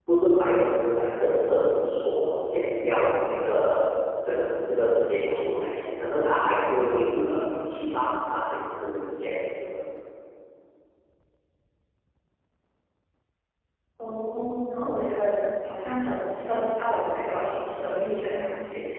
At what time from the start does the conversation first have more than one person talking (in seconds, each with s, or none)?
none